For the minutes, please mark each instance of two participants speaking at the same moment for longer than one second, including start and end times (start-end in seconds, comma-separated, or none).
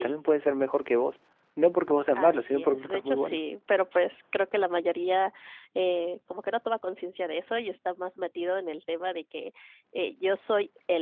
2.1-3.4